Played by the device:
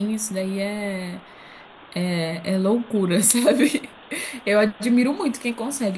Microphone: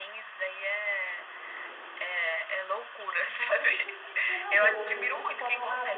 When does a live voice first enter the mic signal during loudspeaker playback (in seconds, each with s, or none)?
3.6 s